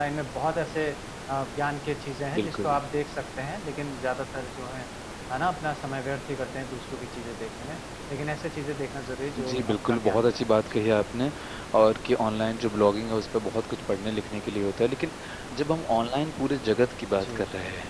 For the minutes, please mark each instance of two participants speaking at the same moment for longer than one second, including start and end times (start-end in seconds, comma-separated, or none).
9.4-10.8